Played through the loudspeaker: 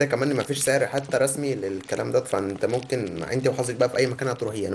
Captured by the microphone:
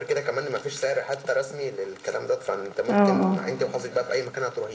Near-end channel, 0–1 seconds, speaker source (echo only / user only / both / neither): echo only